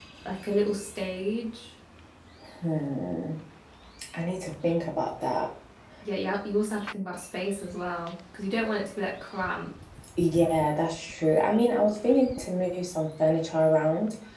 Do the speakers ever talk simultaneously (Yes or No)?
No